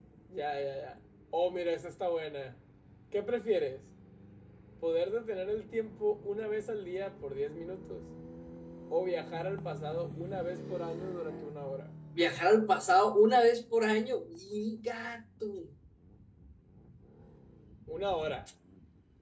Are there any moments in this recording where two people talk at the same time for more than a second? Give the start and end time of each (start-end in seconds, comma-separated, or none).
none